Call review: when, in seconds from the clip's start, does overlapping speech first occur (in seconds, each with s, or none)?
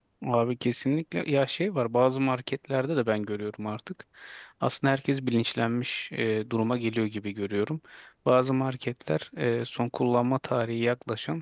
none